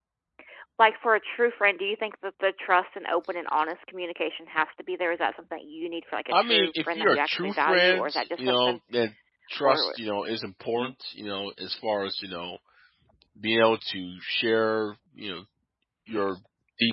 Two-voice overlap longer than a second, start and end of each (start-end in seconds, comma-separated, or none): 6.3-8.8